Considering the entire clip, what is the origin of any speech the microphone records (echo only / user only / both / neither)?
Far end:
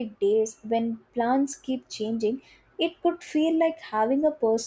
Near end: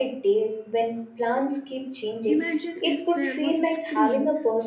both